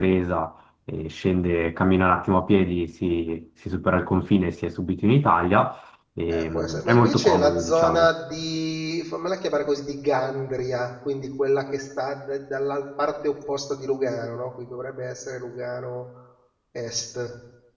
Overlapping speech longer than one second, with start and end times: 6.3-8.1

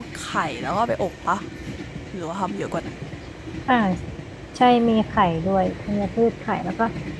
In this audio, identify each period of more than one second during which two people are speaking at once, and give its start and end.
none

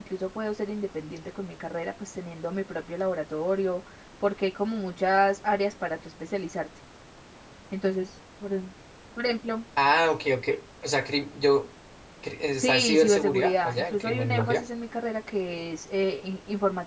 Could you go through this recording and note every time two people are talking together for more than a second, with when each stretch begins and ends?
12.5-14.6

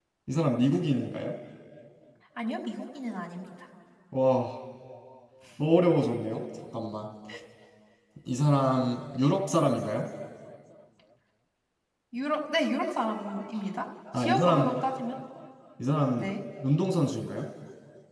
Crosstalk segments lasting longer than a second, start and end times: none

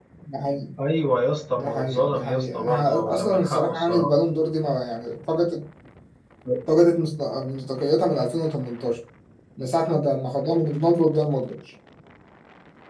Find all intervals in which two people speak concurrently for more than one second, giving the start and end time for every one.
1.6-4.1

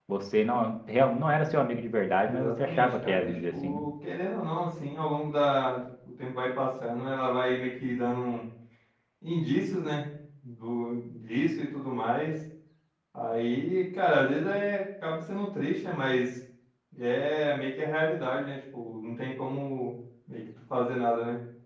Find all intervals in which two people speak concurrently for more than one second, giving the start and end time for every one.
2.2-3.8

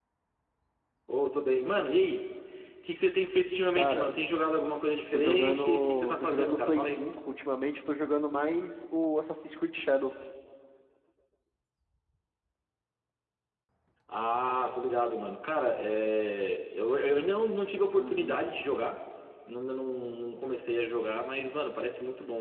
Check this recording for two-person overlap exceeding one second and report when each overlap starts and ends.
5.1-7.0

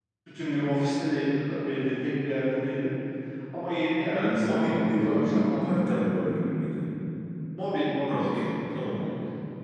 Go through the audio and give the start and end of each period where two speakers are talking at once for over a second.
4.1-5.8

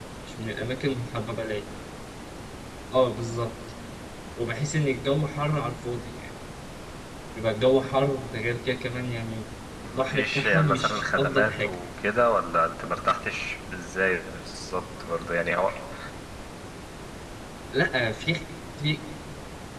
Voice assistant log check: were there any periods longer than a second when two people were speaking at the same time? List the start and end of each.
9.9-11.7

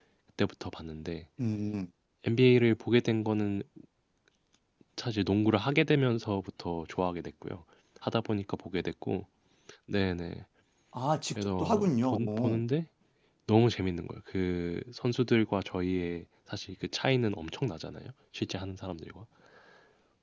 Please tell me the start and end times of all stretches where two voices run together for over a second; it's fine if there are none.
11.4-12.6

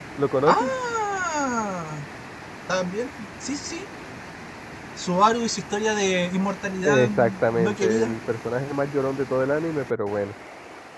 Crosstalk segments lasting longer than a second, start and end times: 6.8-8.2

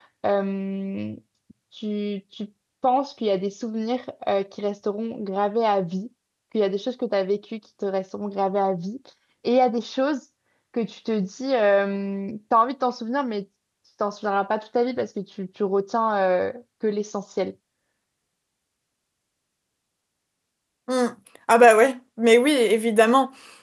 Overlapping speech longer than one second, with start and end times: none

